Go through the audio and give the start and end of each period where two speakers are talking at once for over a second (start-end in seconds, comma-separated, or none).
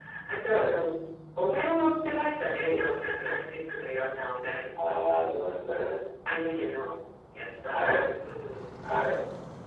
none